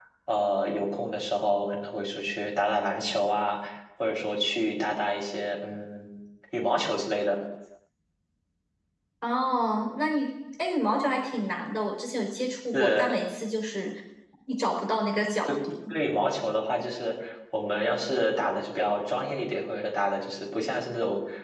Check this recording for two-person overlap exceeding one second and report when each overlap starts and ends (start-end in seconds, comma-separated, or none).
none